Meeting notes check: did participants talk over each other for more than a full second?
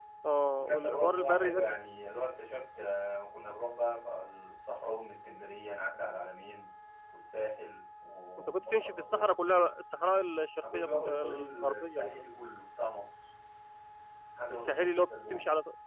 Yes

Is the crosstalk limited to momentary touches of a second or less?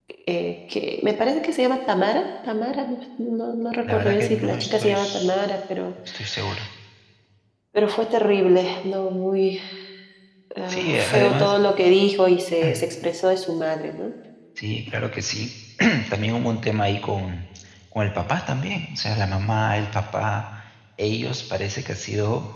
No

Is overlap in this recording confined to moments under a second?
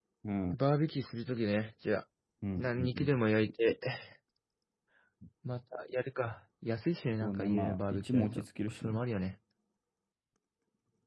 No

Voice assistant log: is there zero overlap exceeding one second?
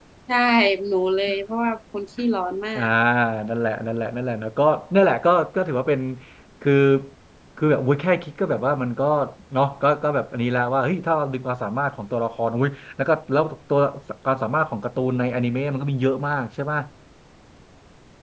Yes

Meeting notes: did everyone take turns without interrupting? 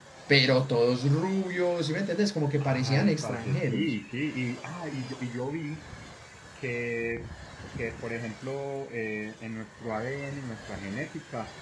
No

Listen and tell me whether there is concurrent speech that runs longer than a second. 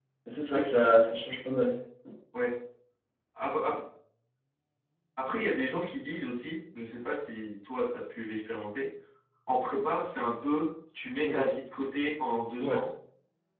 No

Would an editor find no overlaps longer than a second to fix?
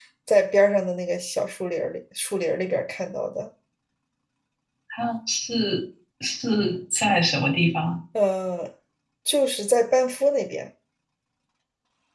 Yes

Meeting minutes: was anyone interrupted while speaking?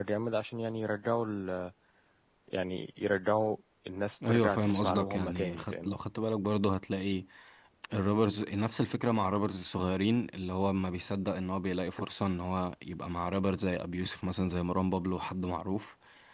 Yes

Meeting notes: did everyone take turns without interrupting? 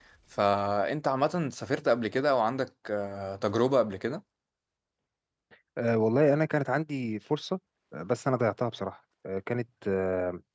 Yes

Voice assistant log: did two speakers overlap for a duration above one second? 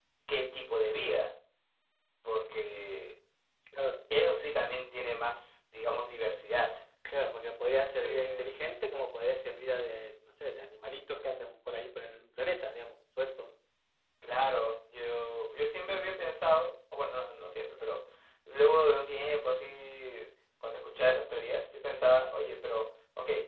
No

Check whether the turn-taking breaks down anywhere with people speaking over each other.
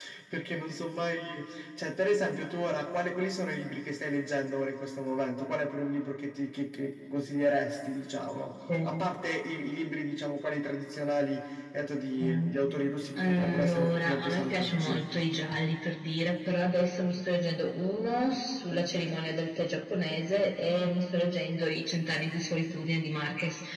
Yes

